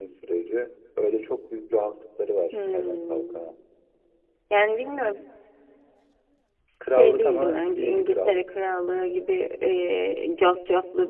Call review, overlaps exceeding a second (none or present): present